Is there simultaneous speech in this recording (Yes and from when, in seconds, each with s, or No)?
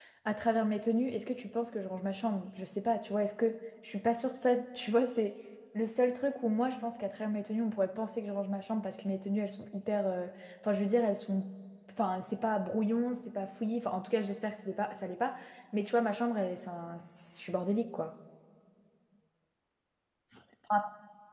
No